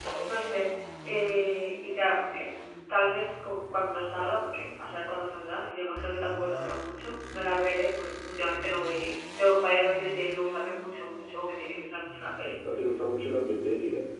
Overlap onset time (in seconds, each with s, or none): none